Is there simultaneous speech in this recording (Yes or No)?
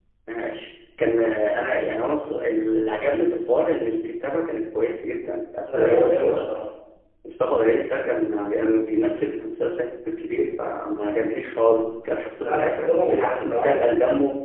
Yes